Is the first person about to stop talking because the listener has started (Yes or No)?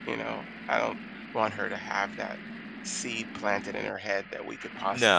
Yes